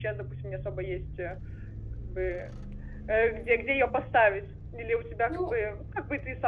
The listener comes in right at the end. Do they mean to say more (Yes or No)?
No